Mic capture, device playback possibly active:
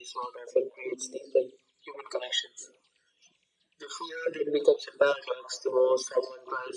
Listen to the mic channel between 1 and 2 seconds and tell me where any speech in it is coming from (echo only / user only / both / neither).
echo only